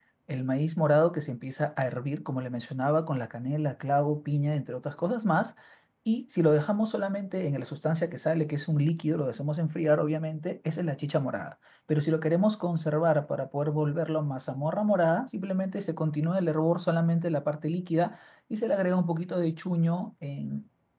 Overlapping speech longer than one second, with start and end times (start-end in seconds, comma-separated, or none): none